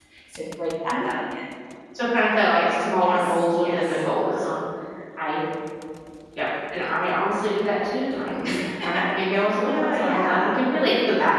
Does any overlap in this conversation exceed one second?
Yes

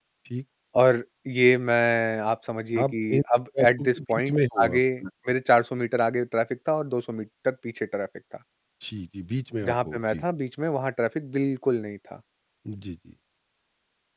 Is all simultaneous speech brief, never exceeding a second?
No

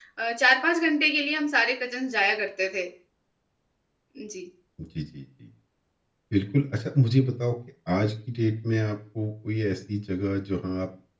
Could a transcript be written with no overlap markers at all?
Yes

